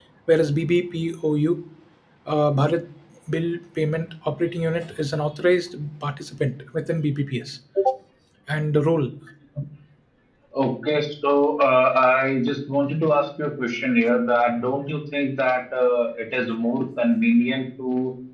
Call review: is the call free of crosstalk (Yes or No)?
Yes